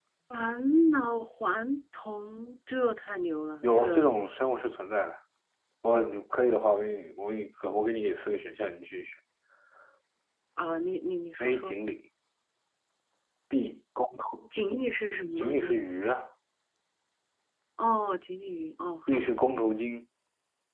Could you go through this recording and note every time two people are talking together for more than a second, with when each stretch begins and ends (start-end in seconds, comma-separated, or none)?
none